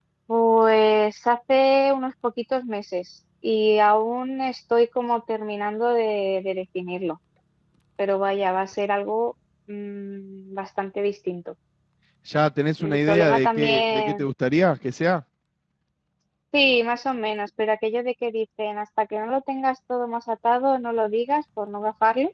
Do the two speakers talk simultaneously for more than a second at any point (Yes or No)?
Yes